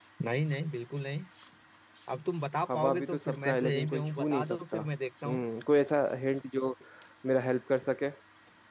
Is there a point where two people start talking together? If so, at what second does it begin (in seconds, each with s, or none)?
2.7 s